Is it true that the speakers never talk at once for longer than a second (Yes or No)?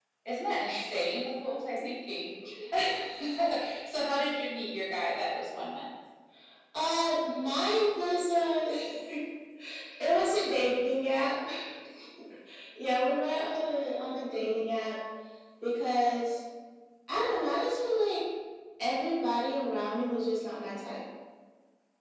Yes